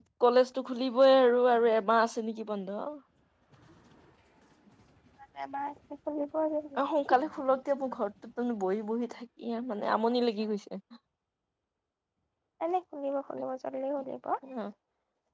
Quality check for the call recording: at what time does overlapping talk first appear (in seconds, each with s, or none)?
none